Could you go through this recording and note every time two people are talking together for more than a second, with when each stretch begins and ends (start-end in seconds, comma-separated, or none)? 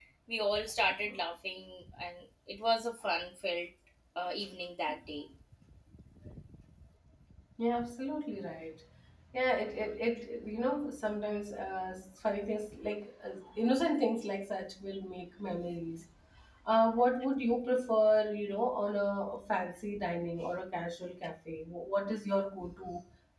none